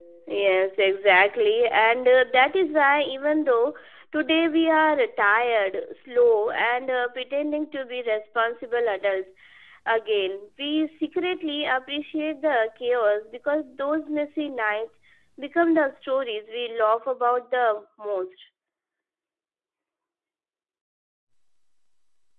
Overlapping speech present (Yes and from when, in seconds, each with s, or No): No